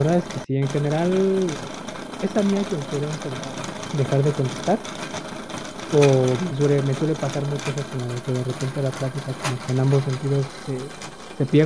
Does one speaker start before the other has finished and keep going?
No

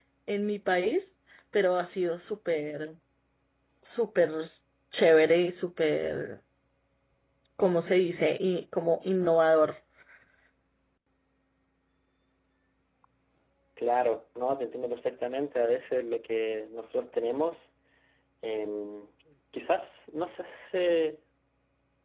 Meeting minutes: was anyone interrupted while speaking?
No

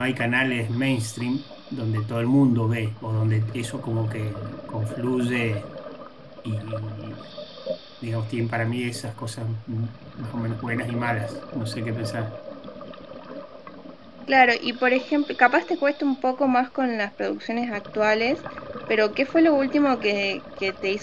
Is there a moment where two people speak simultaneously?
No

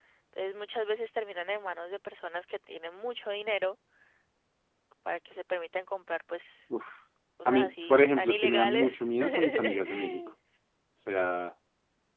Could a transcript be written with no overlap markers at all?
No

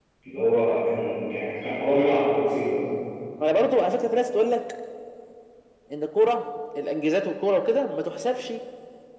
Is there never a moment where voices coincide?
Yes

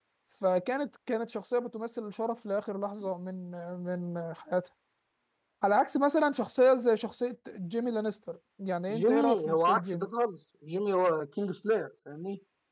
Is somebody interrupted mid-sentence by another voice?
Yes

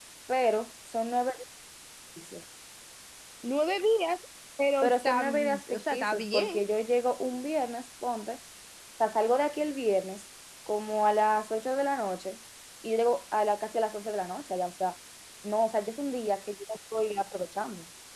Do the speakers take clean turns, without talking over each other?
No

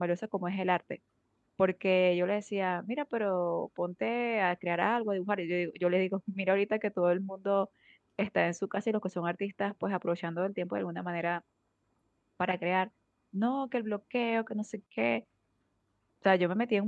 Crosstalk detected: No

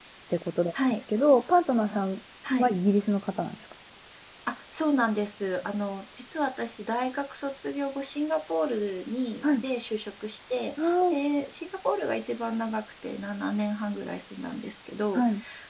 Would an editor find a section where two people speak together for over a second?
No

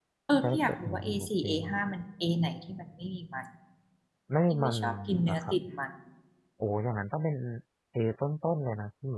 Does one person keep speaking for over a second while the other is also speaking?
Yes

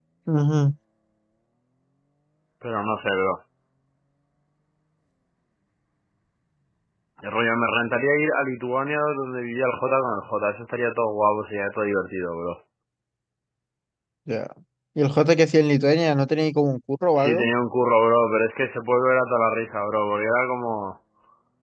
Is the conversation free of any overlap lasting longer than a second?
Yes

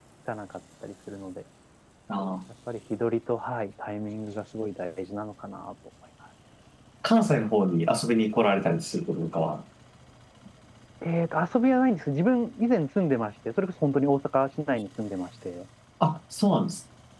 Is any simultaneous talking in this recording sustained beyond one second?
No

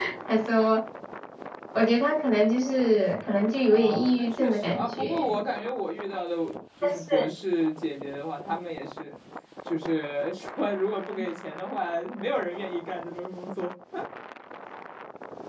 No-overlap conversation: No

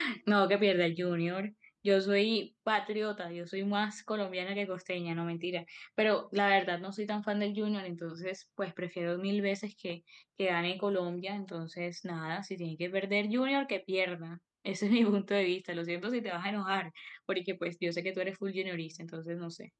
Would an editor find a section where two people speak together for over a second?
No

